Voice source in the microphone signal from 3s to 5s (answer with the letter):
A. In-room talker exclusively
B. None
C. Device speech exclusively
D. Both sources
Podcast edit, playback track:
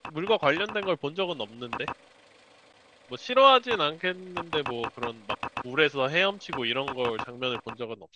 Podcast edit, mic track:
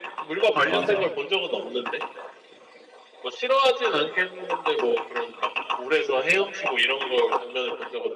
C